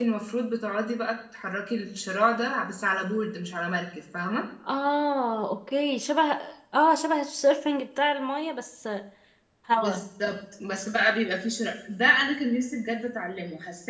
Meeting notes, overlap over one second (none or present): none